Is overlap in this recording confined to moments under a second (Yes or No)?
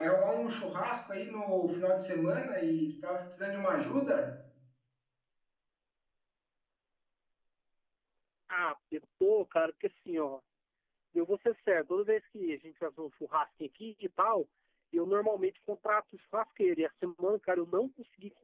Yes